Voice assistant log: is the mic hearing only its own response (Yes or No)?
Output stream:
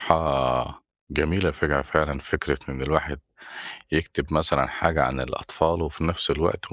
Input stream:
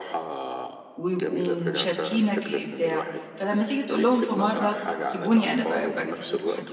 No